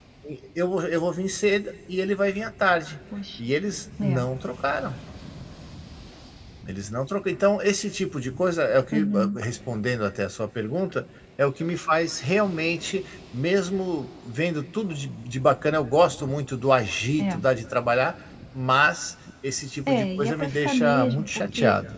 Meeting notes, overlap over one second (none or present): present